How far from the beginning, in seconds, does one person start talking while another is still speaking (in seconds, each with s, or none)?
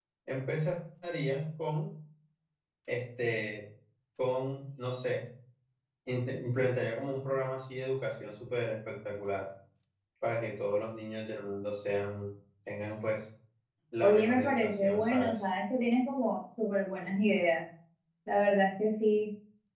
14.0 s